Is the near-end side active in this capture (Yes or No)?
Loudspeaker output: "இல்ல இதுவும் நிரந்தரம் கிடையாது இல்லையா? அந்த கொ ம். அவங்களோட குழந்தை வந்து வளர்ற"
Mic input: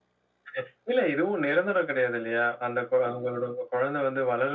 No